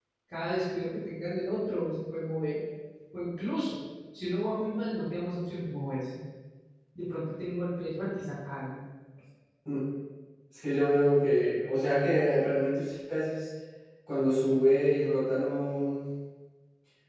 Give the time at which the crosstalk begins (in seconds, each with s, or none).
none